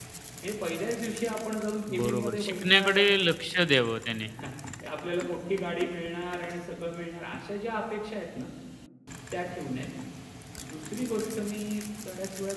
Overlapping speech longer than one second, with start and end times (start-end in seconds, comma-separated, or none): 1.9-3.1